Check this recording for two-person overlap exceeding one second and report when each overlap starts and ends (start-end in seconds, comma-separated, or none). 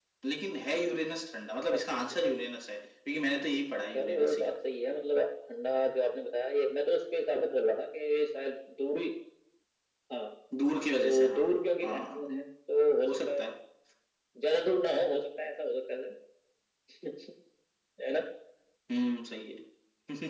11.0-12.3